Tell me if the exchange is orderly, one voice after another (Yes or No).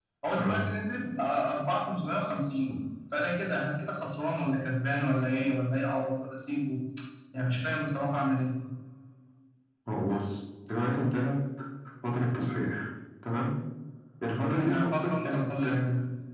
No